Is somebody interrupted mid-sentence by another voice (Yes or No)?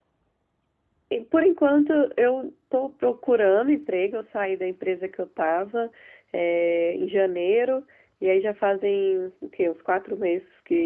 No